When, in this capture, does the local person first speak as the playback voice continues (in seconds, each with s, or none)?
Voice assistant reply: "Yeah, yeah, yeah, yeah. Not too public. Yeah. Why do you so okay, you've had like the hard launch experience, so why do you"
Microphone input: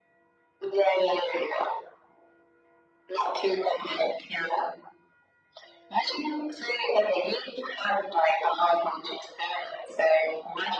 none